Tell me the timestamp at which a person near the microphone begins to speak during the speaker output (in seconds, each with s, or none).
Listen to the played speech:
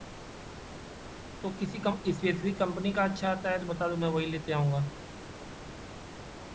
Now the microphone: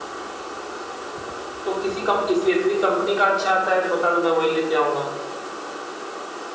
none